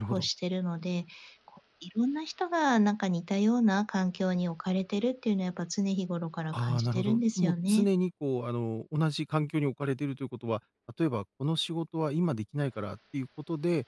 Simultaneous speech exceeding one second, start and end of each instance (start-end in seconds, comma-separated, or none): 6.5-7.9